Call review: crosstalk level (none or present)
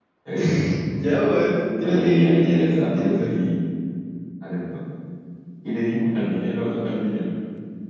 present